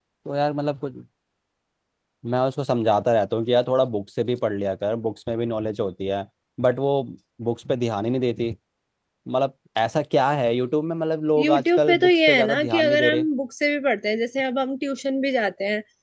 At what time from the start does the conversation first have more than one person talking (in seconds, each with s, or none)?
11.4 s